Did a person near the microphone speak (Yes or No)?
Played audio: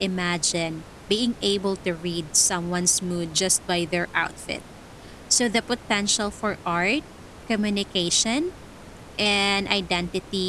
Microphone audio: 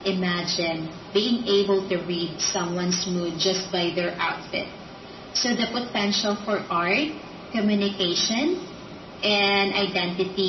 No